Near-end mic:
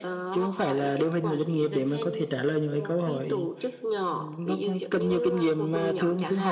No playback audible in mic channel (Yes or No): No